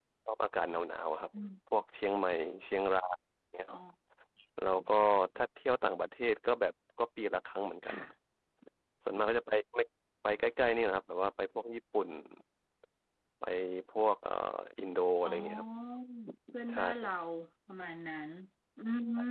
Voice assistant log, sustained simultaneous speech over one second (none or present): none